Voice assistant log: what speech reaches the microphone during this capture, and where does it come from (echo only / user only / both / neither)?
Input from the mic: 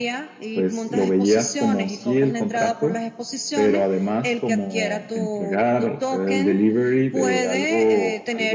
echo only